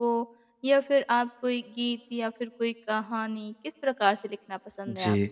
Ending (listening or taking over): taking over